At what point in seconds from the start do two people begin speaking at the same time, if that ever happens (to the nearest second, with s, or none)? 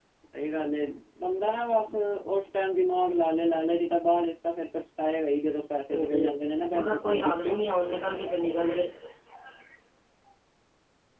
6 s